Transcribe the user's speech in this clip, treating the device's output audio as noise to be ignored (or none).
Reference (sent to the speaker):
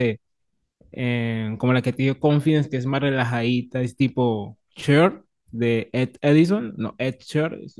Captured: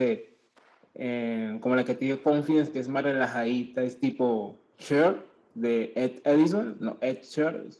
none